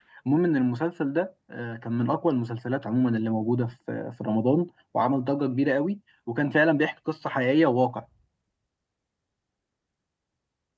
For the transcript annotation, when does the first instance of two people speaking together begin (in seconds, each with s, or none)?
none